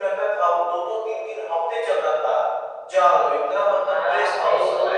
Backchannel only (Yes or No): No